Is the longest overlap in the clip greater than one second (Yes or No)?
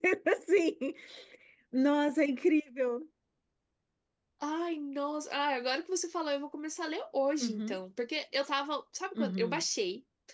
No